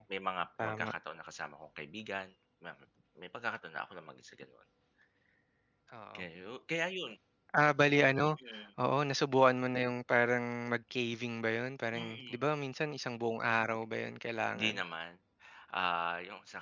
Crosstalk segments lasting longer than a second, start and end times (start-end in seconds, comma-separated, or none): none